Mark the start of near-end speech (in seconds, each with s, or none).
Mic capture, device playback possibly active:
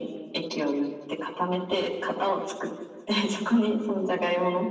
none